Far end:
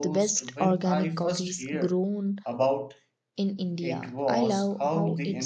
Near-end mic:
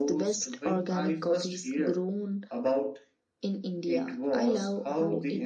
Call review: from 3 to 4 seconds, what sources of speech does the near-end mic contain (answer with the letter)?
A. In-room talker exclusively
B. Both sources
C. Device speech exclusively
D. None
C